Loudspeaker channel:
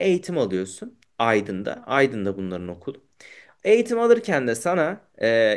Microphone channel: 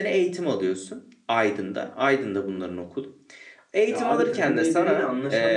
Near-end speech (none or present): present